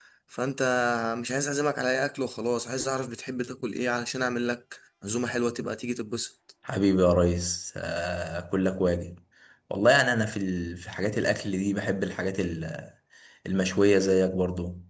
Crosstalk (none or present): none